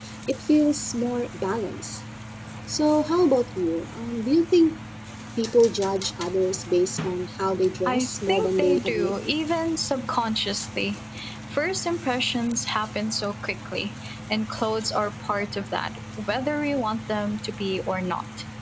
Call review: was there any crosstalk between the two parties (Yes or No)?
Yes